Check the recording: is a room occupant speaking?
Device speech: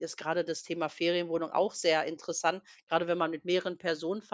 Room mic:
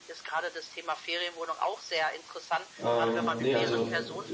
Yes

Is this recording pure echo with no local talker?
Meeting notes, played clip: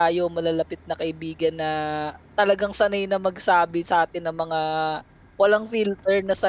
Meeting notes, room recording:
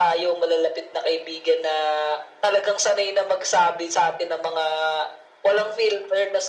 Yes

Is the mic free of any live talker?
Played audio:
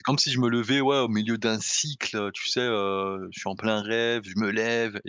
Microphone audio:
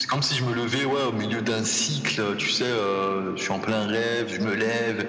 Yes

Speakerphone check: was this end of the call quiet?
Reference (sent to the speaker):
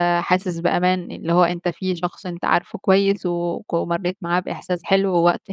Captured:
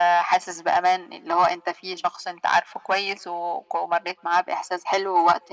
Yes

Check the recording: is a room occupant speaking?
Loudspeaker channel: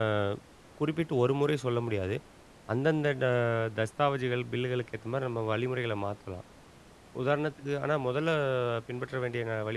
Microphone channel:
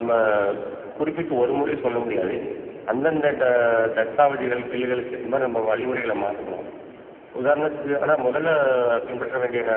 No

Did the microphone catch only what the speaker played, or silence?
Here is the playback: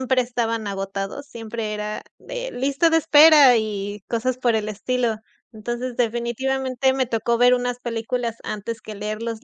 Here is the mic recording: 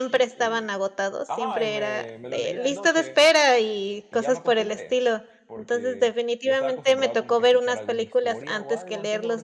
No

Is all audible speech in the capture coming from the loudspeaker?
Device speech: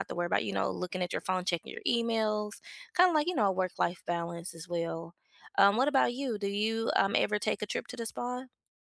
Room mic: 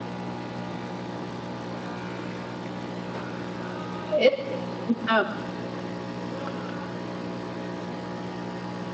No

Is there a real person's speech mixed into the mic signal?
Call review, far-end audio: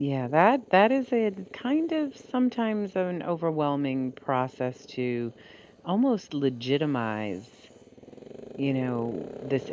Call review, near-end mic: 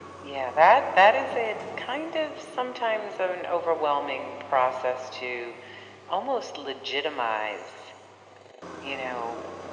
No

